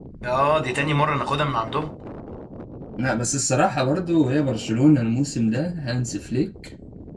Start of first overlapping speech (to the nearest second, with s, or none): none